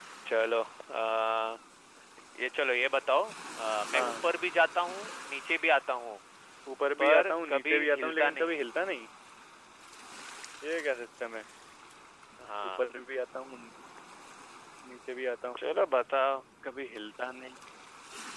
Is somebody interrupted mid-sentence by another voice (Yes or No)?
Yes